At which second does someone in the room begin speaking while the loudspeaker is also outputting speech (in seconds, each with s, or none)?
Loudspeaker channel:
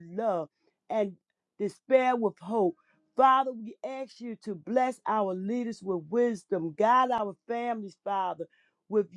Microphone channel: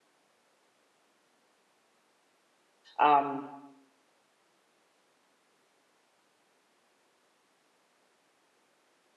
3.0 s